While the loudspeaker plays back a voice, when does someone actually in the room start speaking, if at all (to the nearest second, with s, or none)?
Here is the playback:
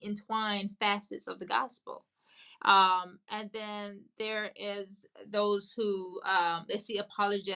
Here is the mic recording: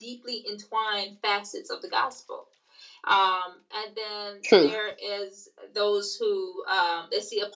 4 s